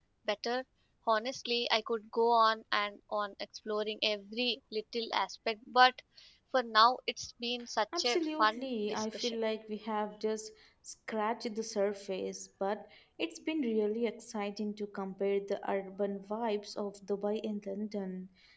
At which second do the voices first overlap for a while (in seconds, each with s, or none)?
7.9 s